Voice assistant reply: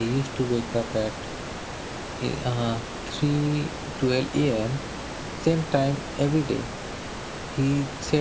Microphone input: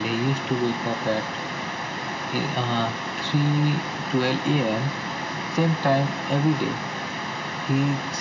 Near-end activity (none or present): none